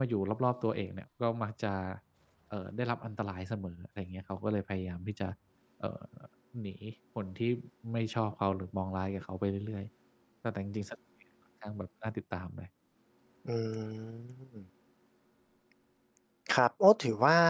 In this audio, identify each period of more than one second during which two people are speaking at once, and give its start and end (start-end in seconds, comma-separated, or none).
none